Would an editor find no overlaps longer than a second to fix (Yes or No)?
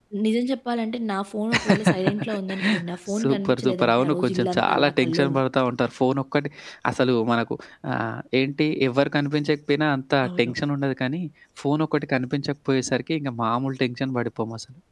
No